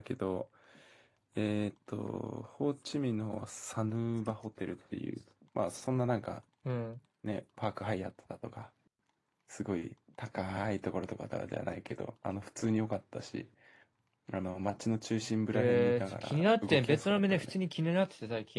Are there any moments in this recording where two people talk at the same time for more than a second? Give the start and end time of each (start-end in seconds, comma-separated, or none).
15.5-17.5